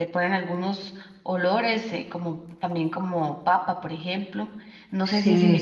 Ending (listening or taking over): taking over